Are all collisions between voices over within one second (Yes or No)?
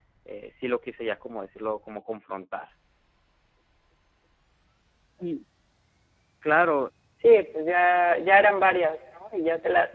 Yes